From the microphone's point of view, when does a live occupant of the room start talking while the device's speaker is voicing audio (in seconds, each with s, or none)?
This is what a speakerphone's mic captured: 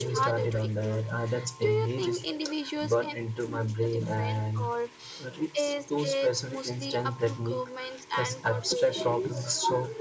none